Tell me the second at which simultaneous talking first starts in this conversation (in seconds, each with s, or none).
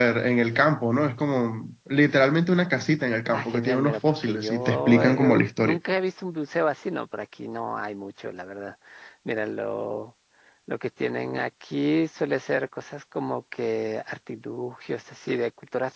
3.3 s